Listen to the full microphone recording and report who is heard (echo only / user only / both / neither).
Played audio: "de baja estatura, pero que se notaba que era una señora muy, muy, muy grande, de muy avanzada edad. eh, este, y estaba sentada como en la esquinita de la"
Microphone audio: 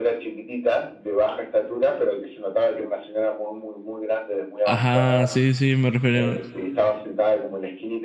both